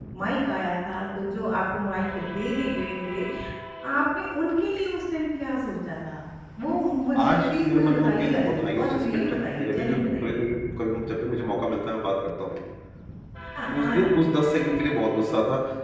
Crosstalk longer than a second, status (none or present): present